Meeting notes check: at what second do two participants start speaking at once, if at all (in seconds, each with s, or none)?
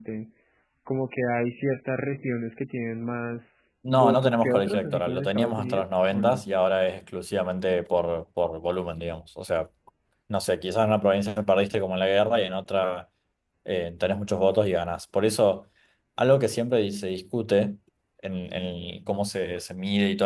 3.9 s